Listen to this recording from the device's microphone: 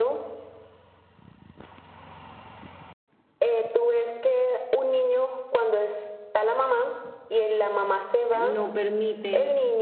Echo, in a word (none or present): present